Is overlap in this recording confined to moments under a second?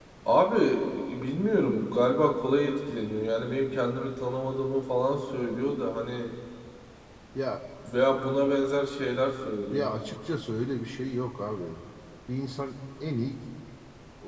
Yes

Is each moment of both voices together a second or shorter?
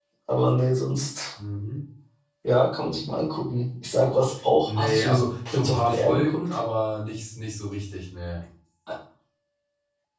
No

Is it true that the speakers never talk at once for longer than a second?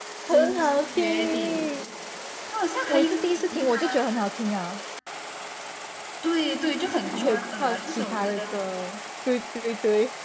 No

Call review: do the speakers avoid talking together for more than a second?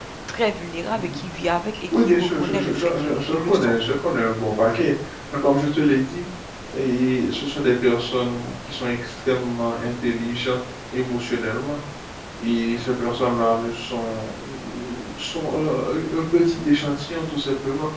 No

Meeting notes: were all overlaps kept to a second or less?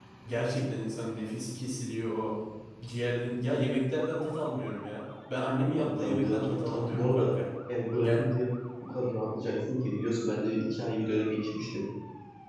No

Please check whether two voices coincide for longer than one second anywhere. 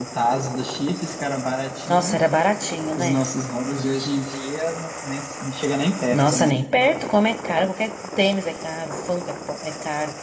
No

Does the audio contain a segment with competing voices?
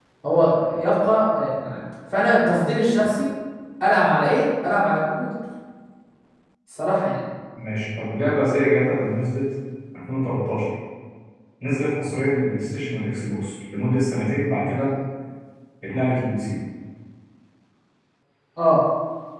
No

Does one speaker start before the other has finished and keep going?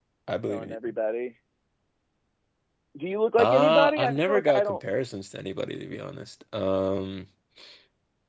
Yes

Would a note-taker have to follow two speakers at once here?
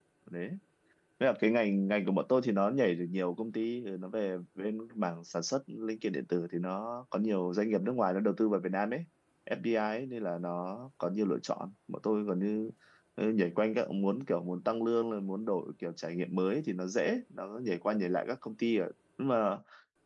No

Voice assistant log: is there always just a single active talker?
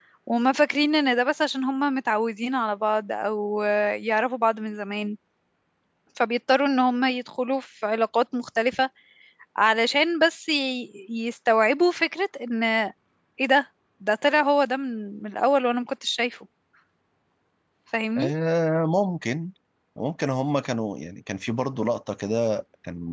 Yes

